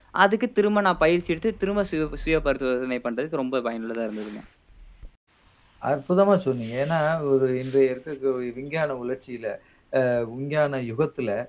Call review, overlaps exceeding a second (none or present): none